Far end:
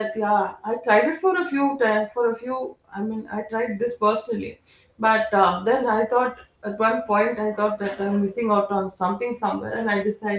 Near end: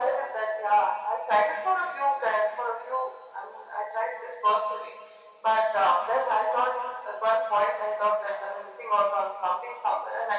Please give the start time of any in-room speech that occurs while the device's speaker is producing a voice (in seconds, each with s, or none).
none